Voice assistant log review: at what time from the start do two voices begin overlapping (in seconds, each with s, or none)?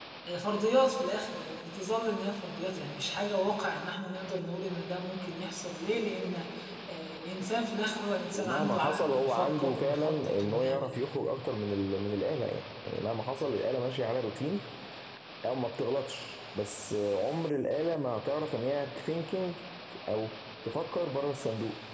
8.3 s